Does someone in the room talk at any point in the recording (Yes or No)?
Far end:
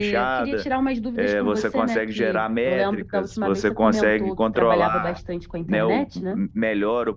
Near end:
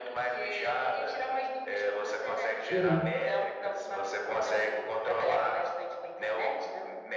Yes